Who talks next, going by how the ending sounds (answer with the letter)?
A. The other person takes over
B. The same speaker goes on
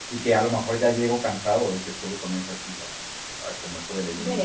A